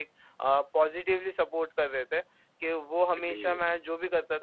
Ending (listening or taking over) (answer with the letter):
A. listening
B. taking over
A